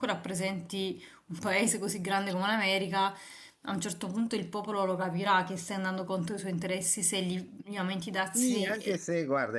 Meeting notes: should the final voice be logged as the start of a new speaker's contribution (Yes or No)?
Yes